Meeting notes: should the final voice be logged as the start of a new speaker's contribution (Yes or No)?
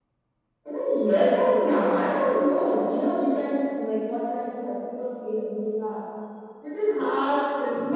No